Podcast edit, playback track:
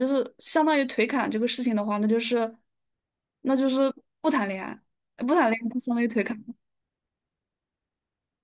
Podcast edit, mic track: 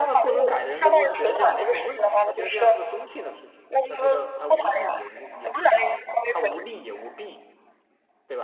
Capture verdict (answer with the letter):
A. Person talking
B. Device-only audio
A